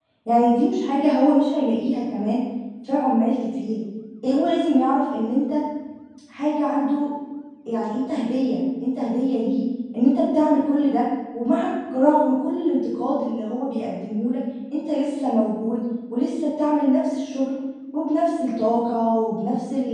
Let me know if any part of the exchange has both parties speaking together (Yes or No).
No